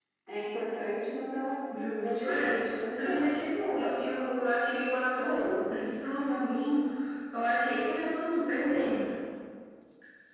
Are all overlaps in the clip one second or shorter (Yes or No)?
Yes